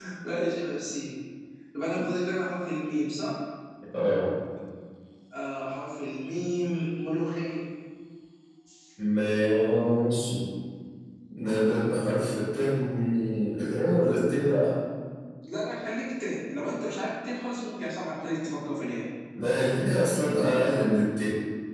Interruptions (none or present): none